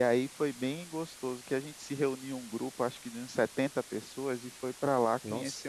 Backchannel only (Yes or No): Yes